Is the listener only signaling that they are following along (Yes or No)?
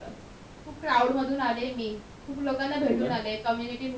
Yes